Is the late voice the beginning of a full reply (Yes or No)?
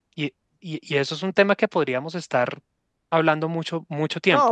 Yes